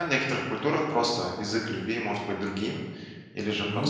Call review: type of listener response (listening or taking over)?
listening